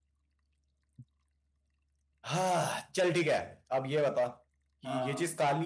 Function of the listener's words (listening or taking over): listening